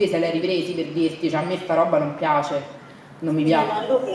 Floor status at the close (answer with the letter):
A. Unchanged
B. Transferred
B